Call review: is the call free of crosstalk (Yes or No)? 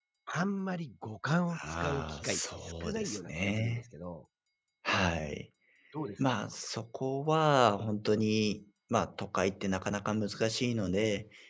No